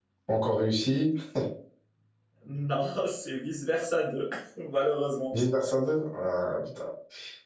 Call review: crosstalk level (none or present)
none